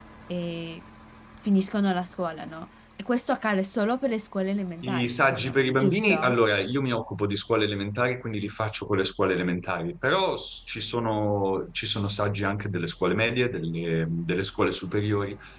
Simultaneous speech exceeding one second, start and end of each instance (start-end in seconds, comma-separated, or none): 4.8-6.4